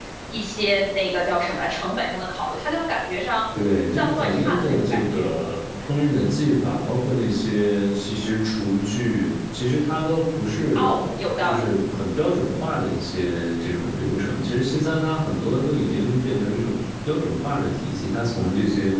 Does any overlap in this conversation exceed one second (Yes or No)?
Yes